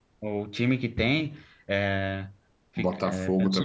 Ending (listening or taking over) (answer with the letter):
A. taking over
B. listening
A